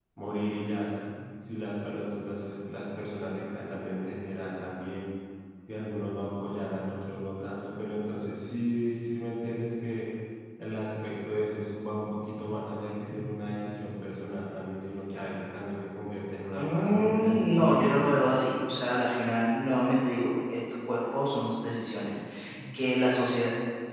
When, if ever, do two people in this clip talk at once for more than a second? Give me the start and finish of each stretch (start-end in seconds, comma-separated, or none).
16.6-18.2